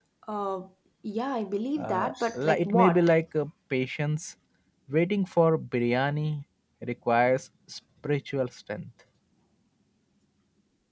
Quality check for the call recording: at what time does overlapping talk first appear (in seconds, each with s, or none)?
1.8 s